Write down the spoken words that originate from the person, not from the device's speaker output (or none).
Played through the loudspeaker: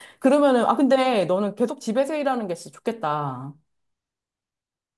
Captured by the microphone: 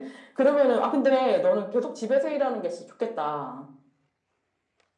none